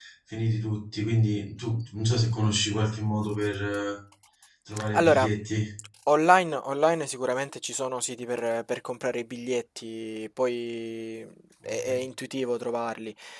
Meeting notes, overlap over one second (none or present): none